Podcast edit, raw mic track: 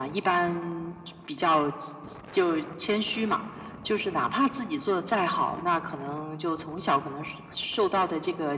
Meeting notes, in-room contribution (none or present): none